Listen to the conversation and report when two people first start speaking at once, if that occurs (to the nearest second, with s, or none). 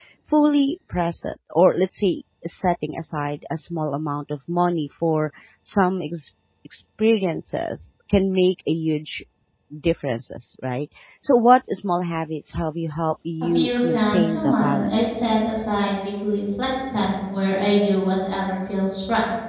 14 s